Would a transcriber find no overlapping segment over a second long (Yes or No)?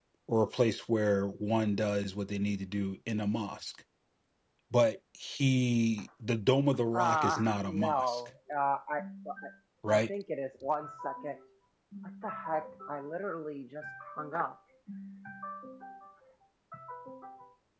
No